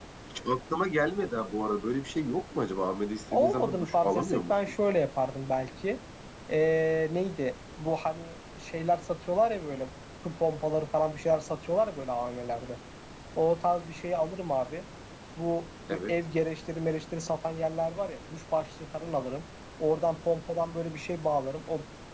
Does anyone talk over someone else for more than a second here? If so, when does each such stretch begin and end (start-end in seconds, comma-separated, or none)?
3.3-4.5